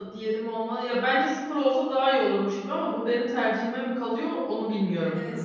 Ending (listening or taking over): taking over